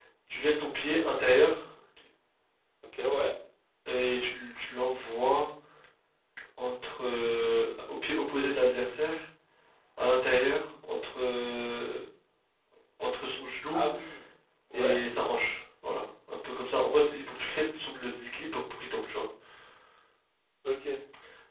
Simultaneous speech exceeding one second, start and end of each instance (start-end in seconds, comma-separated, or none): none